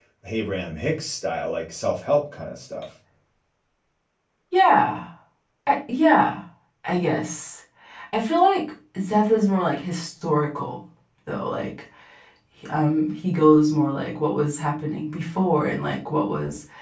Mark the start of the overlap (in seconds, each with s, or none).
none